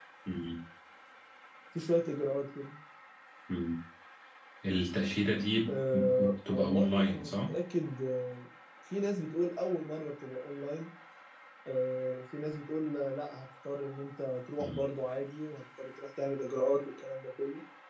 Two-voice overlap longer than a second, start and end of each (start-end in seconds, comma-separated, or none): 5.7-7.5